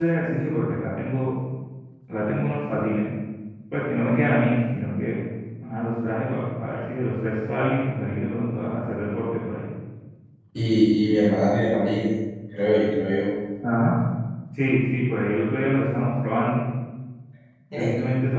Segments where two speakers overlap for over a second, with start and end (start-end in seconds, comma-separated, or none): none